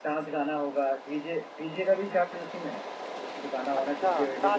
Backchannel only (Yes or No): No